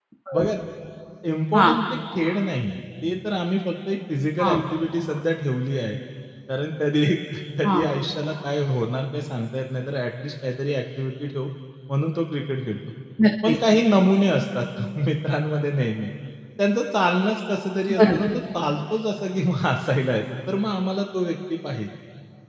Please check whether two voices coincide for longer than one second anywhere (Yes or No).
No